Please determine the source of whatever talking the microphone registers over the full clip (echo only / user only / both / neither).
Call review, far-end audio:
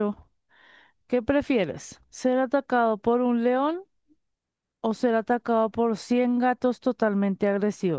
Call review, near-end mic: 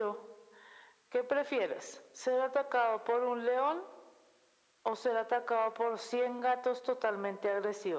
echo only